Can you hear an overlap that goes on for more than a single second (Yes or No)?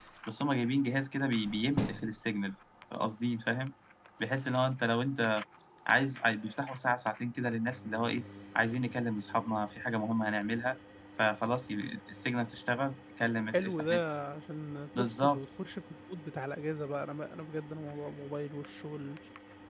No